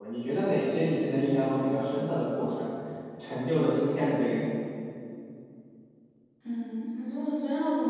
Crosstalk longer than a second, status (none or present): none